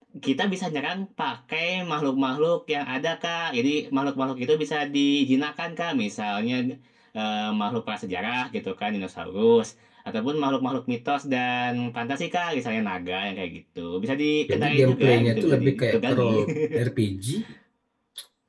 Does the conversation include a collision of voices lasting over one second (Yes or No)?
Yes